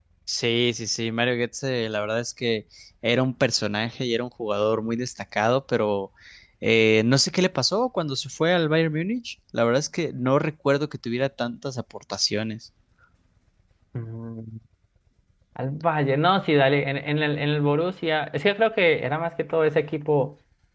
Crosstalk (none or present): none